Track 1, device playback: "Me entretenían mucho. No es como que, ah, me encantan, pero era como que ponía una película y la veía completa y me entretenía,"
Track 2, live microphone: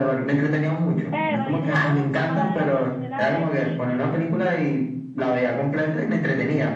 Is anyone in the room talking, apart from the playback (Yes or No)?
Yes